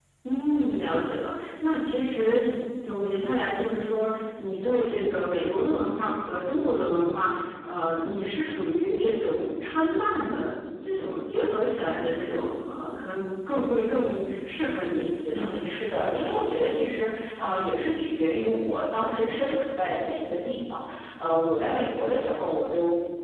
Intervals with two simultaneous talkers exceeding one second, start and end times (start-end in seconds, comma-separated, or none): none